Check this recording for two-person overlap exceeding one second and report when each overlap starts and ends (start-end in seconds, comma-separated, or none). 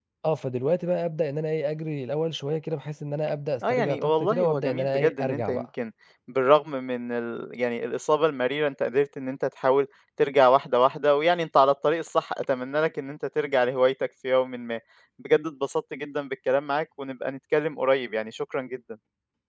3.7-5.6